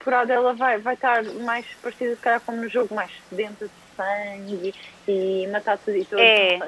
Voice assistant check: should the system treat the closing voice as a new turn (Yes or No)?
Yes